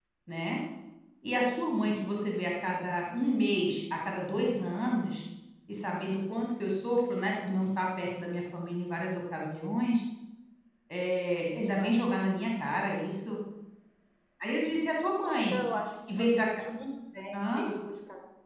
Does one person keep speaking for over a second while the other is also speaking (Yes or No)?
No